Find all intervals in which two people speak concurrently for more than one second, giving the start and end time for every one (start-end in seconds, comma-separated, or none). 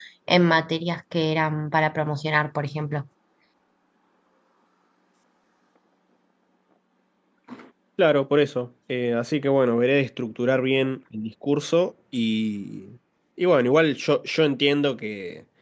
none